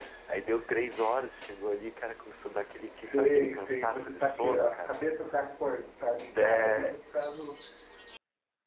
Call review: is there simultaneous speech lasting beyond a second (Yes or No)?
Yes